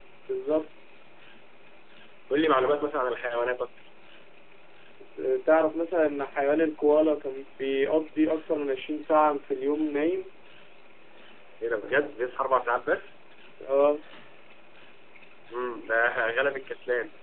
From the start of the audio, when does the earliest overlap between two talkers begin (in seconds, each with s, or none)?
none